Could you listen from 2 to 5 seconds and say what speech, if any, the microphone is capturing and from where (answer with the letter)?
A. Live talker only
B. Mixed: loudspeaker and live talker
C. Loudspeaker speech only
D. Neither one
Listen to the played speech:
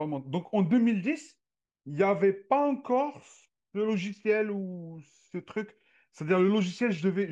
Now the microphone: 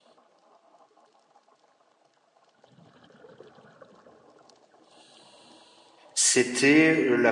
D